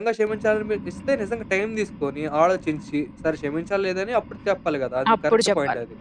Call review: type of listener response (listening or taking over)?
taking over